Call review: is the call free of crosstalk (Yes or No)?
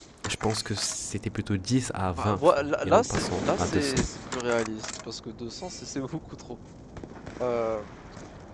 No